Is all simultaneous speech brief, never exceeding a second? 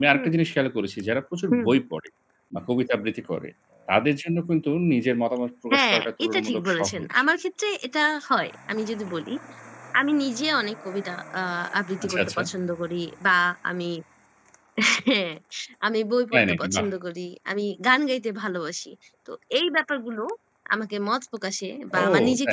No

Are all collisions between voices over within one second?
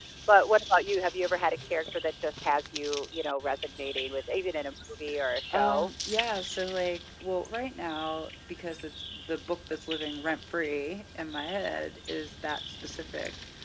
Yes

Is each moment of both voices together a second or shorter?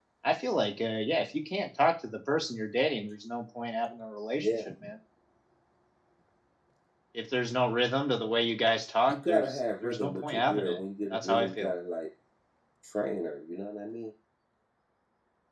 No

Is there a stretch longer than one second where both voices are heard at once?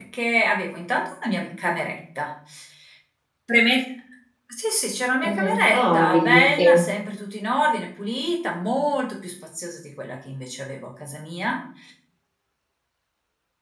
Yes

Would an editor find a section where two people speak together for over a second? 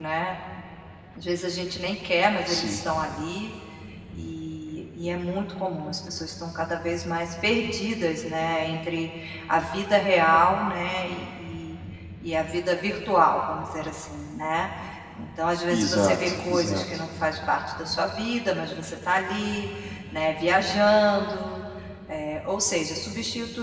Yes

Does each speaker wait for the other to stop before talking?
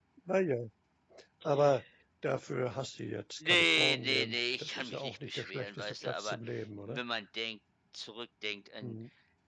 No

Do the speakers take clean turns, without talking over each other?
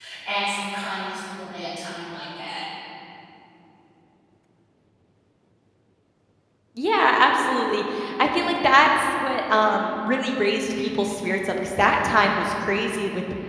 Yes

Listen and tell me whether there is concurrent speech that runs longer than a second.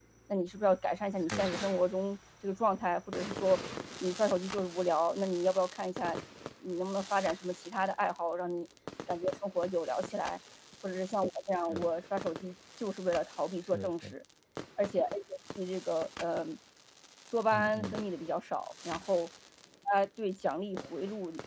No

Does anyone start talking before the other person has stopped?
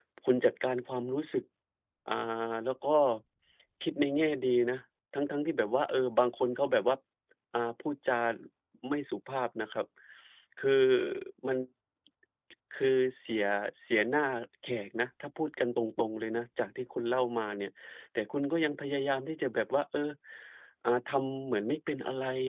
No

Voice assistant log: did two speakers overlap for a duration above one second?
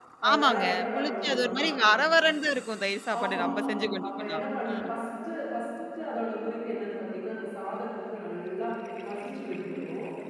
Yes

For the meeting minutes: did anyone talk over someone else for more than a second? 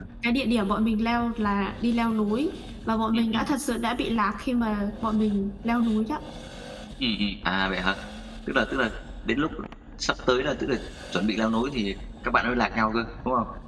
No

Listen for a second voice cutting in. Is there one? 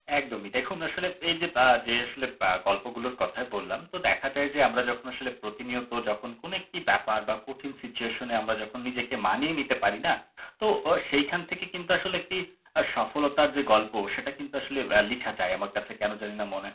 No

